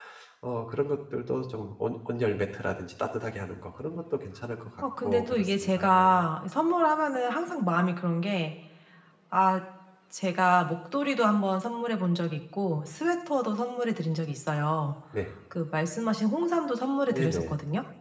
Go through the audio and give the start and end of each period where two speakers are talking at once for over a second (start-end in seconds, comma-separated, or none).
5.0-6.2